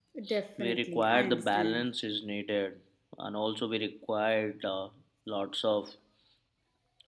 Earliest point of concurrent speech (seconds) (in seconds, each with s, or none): 0.6 s